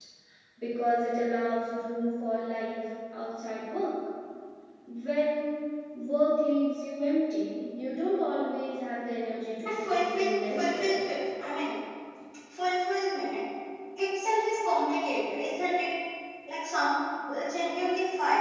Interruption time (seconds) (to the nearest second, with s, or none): 10 s